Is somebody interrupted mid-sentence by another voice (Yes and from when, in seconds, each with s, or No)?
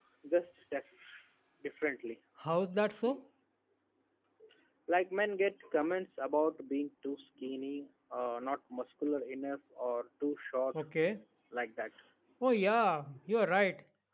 No